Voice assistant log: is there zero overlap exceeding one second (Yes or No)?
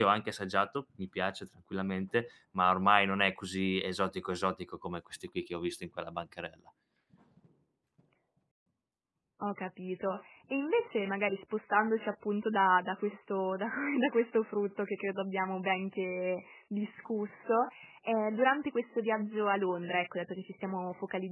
Yes